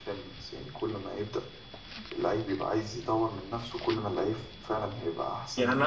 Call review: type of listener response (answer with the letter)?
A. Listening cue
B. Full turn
B